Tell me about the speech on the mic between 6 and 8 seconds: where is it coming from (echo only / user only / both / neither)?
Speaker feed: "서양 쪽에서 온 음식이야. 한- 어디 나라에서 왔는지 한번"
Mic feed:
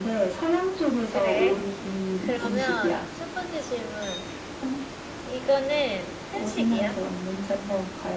both